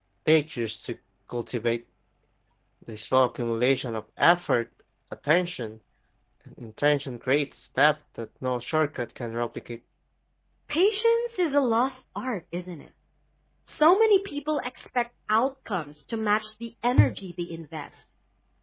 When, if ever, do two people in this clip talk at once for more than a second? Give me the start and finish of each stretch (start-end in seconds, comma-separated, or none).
none